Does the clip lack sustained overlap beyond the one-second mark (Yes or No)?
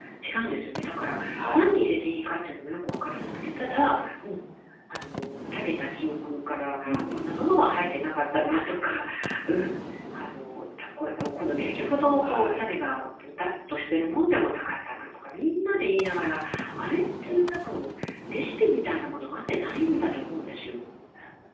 Yes